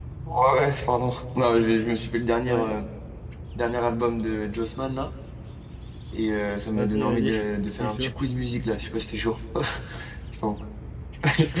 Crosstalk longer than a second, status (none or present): present